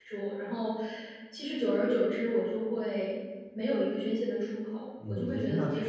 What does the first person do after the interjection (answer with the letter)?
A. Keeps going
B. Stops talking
B